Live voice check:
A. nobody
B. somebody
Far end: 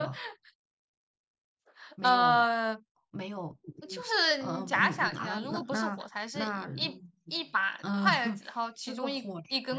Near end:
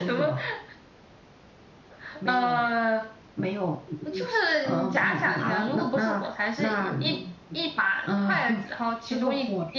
A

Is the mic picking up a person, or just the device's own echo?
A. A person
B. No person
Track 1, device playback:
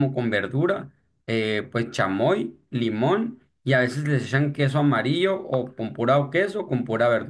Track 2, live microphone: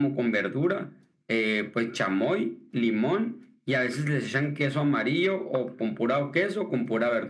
B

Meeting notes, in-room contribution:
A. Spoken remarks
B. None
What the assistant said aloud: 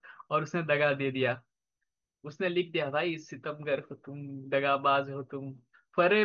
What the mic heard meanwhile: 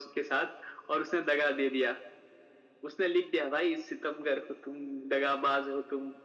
B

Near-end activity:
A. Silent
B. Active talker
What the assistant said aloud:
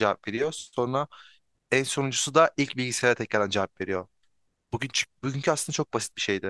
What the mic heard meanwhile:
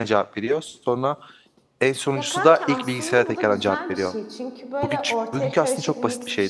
B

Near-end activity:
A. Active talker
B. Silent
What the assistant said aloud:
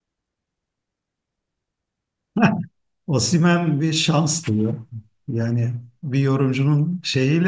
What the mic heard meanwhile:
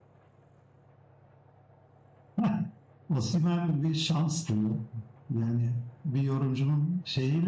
B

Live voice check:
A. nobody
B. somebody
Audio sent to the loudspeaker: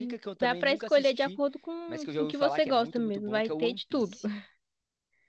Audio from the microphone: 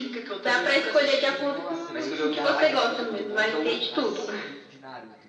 B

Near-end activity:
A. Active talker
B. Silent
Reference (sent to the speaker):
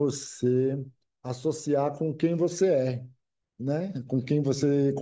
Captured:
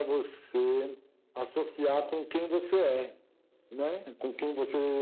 B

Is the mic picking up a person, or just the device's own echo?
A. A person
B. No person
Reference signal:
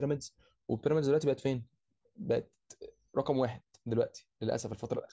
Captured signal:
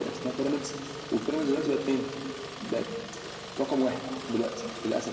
B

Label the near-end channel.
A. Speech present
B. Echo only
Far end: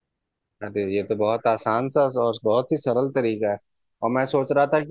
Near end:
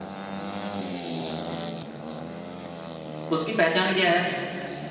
A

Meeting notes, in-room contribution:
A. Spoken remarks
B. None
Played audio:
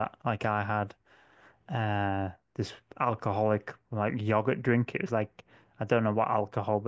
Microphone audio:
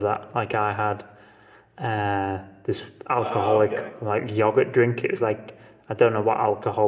A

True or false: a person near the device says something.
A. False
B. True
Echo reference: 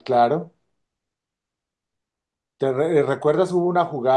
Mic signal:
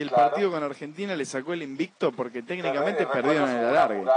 B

